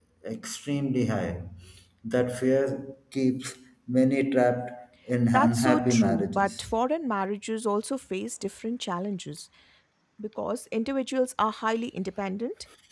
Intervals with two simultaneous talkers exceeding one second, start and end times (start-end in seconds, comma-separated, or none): 5.3-6.6